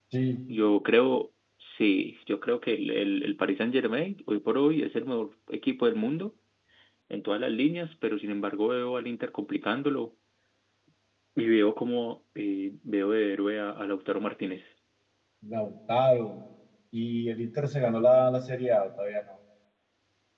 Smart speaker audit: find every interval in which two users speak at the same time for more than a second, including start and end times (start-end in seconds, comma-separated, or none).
none